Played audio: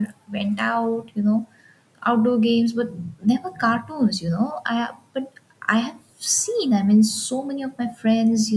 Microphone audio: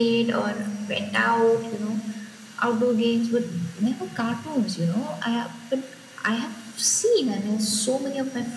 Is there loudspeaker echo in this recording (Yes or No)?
Yes